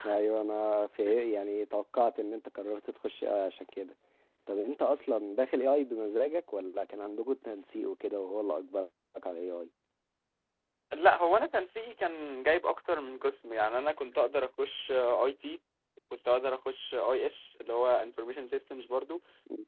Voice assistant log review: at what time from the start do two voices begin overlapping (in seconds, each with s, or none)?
none